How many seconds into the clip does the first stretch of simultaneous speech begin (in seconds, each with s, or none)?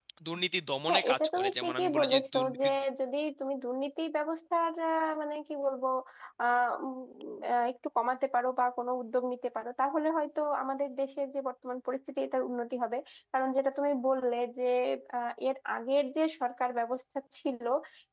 0.9 s